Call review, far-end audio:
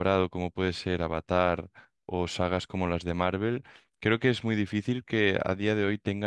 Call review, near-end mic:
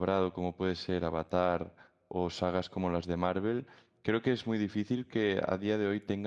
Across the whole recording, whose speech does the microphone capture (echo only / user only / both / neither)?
echo only